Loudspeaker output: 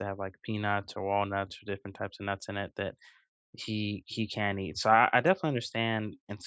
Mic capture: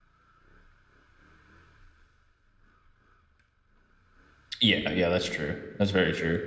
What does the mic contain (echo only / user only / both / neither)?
user only